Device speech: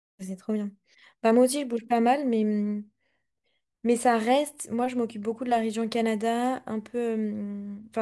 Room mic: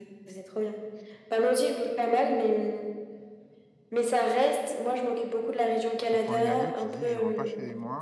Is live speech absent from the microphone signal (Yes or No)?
No